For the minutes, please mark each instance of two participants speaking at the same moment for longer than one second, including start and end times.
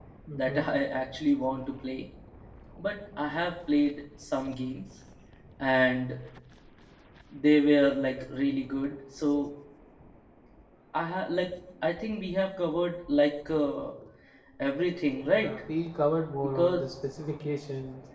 none

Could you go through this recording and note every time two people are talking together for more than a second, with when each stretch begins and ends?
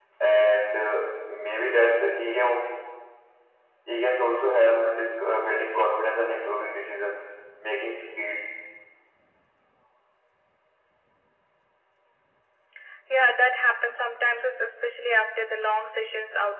none

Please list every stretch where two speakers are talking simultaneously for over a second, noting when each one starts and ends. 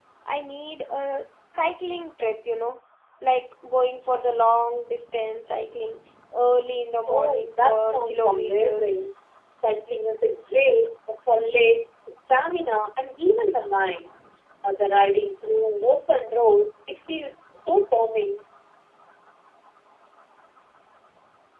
7.1-8.9

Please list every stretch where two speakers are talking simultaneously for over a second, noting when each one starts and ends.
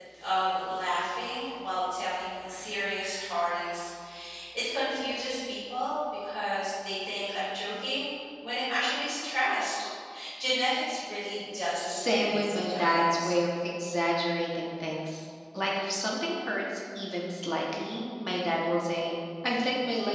11.9-13.3

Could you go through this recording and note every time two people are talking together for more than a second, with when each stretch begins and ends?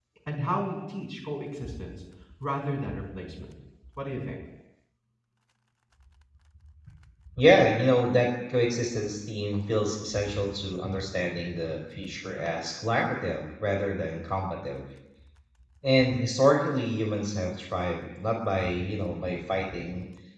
none

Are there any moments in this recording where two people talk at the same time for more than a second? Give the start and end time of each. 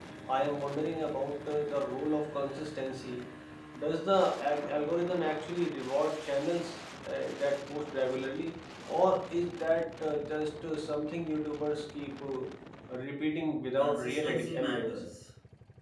13.8-15.0

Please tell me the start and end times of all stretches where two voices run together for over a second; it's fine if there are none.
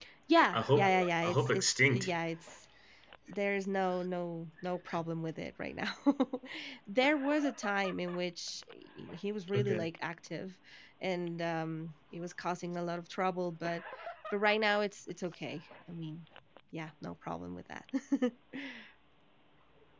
0.5-2.1

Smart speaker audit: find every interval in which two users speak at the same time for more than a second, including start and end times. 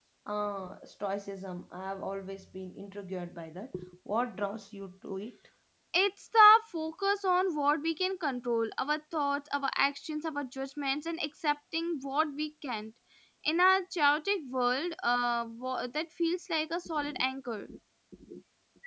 none

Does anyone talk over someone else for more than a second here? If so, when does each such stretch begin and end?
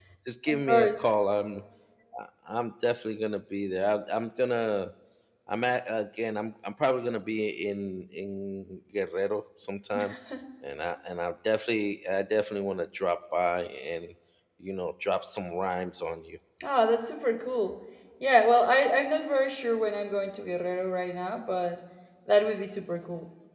none

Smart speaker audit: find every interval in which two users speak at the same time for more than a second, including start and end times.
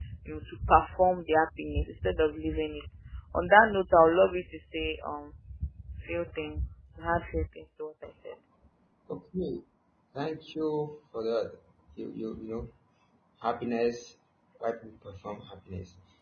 none

